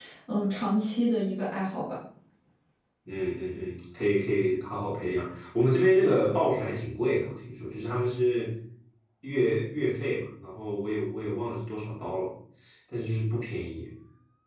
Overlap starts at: none

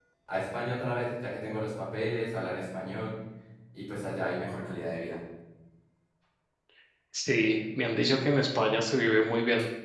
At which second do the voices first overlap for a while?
none

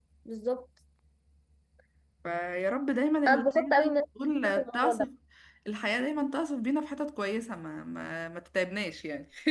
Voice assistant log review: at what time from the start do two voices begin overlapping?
3 s

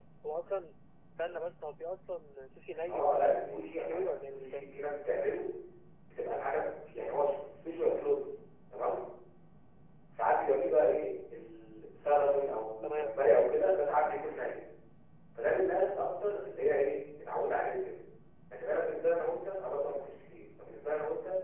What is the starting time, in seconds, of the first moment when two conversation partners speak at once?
3 s

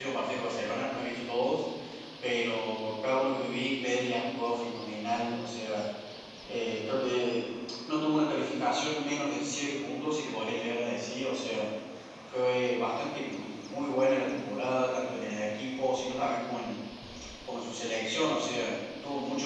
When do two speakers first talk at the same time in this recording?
none

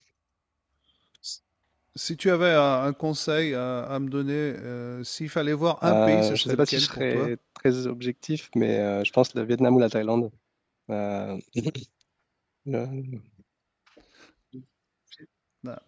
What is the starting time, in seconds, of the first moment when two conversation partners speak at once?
6 s

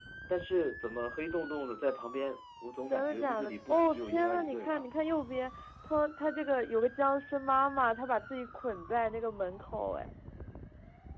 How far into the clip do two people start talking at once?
3 s

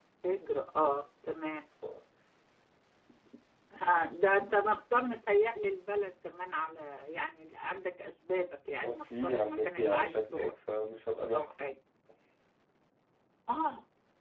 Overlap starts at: 9 s

